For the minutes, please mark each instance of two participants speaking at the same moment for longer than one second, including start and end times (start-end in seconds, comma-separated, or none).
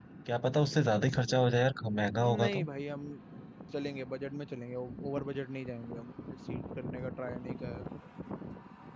none